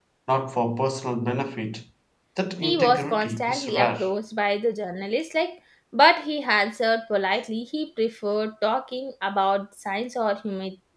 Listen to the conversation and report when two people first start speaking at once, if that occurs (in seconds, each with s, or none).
2.6 s